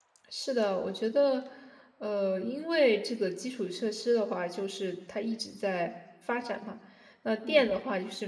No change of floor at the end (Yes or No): Yes